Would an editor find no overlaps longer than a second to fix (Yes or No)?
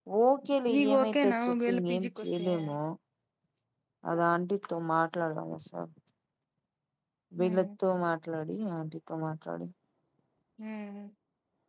No